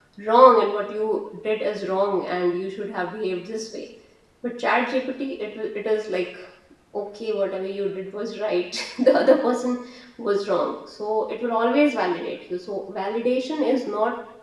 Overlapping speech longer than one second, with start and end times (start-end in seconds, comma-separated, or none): none